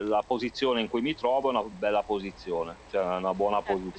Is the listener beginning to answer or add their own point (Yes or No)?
Yes